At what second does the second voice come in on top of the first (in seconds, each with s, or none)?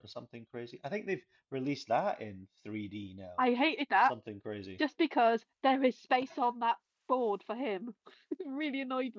none